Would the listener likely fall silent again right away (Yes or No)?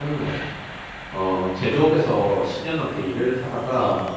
Yes